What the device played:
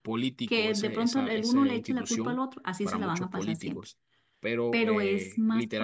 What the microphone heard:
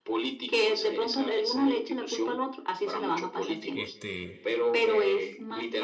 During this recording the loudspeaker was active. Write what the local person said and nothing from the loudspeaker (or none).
este,